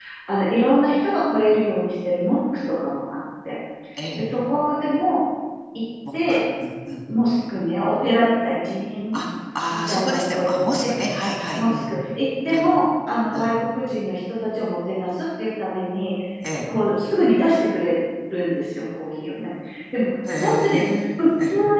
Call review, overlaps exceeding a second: present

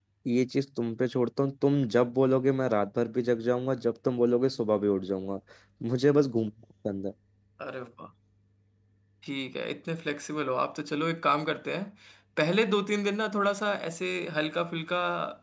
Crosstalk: none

